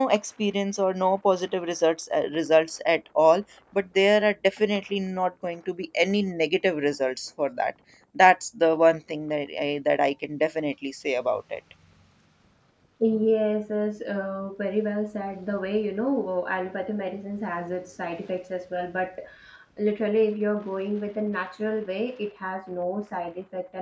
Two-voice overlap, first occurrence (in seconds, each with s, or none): none